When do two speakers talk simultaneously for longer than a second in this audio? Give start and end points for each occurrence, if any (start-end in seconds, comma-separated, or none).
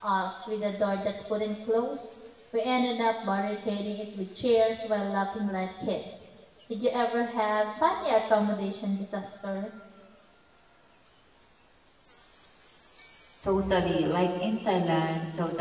none